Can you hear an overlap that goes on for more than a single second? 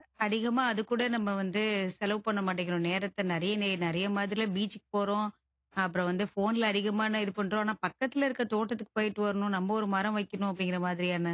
No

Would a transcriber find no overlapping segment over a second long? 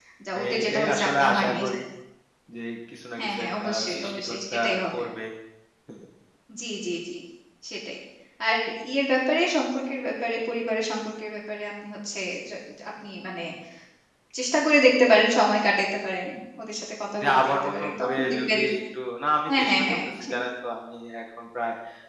No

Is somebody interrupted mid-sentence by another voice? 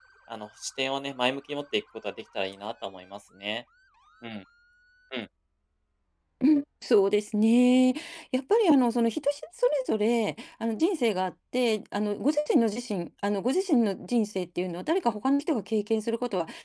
No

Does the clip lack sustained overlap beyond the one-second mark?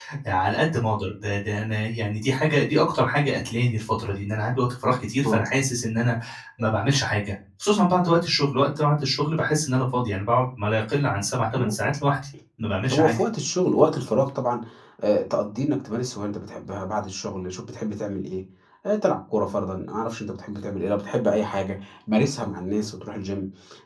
Yes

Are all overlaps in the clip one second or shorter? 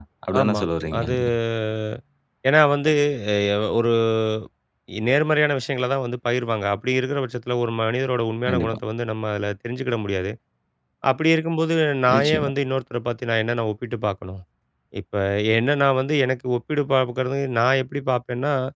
Yes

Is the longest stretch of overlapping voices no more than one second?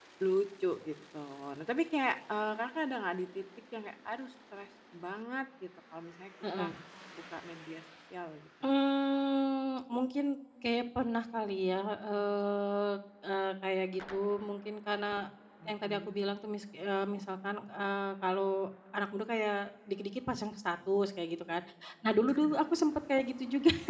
Yes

